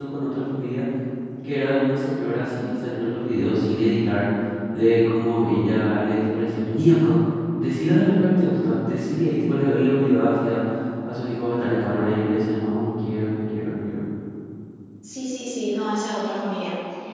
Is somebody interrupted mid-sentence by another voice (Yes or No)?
No